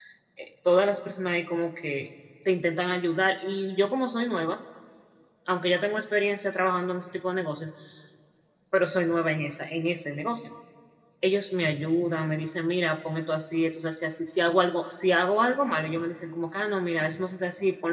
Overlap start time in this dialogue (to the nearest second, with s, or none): none